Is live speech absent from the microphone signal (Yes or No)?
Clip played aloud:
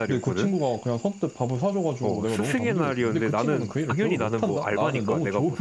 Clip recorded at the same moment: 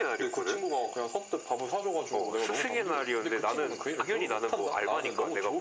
Yes